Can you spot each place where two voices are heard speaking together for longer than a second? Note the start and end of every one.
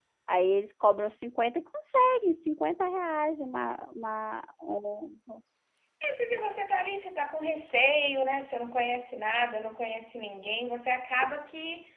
none

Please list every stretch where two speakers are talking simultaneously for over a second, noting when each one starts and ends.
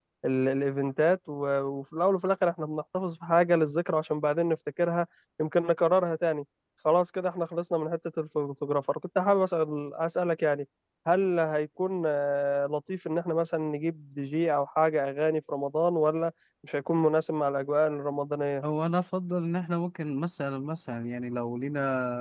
none

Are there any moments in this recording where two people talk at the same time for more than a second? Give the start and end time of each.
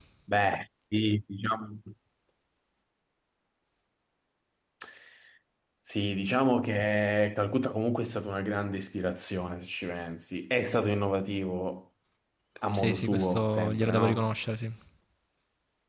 12.7-14.3

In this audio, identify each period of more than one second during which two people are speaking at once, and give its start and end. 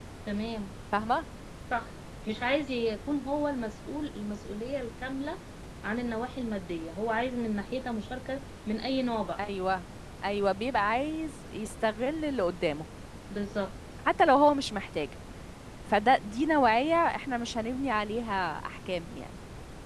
none

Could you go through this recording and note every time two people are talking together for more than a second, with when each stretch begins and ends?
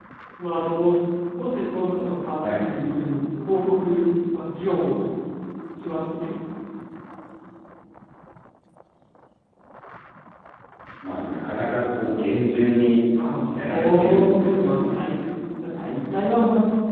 13.5-15.0

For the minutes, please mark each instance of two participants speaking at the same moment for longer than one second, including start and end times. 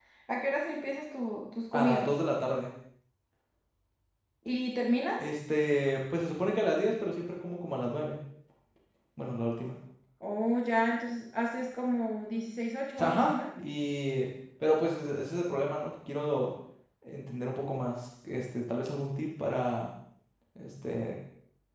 none

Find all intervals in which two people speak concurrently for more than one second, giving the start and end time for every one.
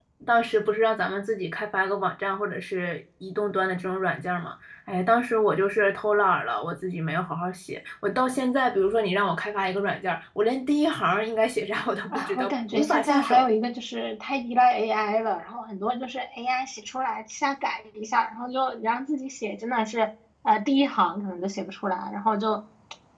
12.1-13.4

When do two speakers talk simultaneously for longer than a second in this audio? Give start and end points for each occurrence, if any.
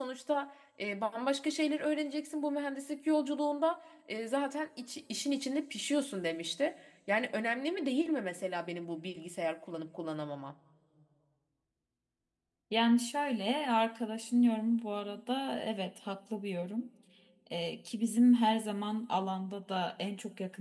none

